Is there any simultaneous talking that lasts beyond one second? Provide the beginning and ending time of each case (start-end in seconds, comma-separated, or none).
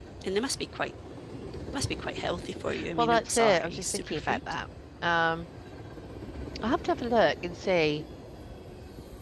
3.0-4.4